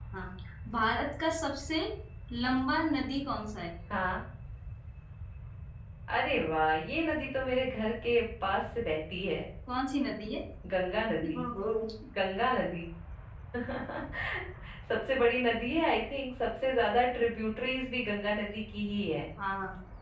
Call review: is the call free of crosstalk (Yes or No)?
Yes